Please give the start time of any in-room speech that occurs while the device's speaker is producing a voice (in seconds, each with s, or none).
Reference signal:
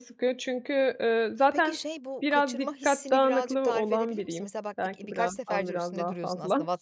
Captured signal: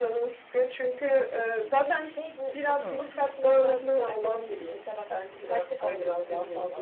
2.8 s